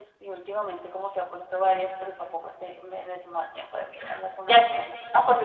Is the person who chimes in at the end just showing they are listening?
No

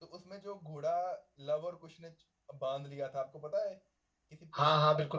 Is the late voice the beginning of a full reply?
Yes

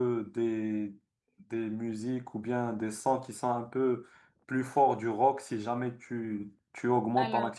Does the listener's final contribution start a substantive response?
No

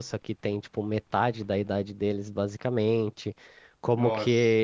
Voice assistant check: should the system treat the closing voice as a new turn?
No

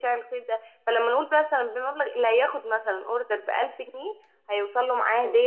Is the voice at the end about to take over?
No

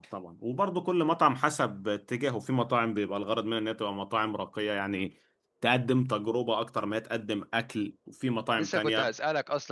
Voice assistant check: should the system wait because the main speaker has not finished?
No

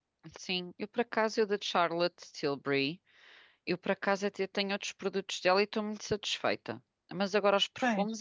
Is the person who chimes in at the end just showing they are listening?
Yes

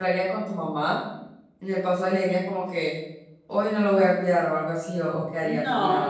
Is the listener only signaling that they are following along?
No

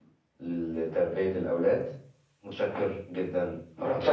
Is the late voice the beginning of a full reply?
Yes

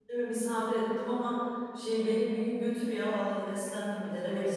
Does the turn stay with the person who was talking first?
No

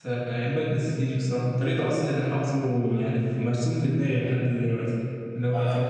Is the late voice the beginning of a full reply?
No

